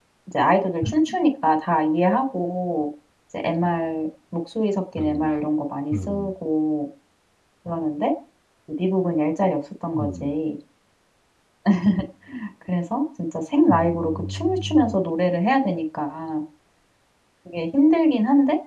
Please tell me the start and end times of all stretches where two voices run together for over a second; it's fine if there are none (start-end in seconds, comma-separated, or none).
13.7-15.0